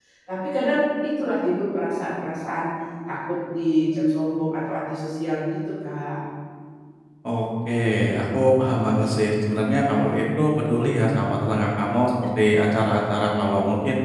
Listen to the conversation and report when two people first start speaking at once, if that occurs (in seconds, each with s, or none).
none